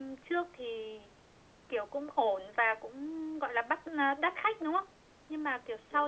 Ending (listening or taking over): listening